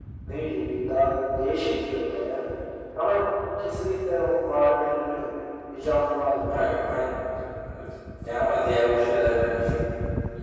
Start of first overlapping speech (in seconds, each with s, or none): none